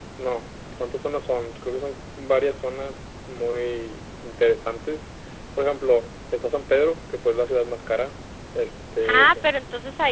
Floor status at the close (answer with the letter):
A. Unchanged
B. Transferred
B